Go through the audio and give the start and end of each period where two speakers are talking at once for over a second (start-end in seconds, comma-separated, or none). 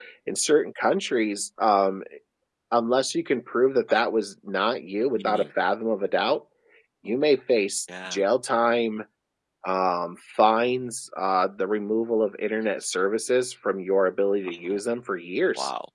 none